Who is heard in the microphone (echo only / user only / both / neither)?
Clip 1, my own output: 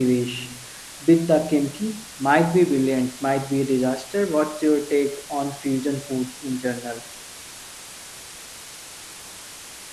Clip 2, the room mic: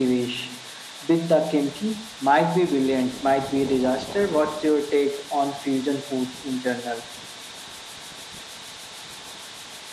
echo only